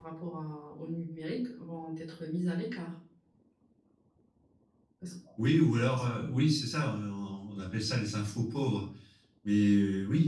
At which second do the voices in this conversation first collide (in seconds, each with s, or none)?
none